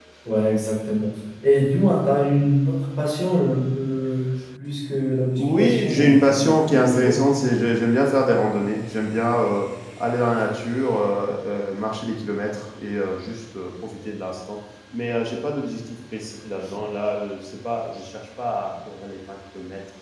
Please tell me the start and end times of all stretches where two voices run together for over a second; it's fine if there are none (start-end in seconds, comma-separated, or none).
5.4-7.1